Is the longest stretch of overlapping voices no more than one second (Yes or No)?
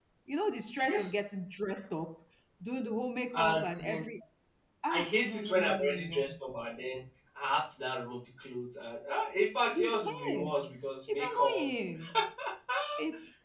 No